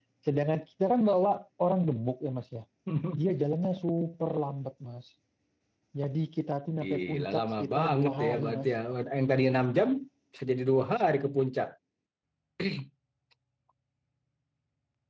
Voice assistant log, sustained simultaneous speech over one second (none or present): present